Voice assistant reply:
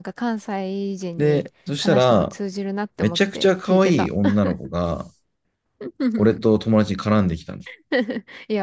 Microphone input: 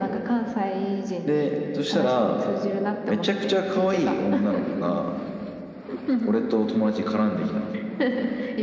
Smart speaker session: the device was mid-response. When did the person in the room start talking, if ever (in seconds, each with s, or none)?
none